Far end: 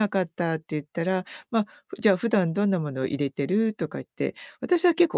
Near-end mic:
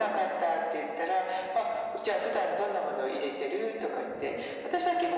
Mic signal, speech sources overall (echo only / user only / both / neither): echo only